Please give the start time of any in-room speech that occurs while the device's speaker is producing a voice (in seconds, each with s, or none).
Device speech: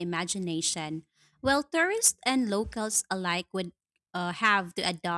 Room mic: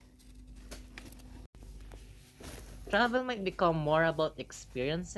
2.9 s